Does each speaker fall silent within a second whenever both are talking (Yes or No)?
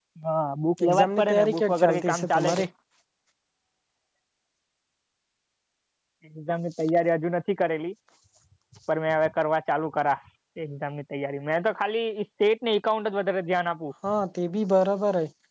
No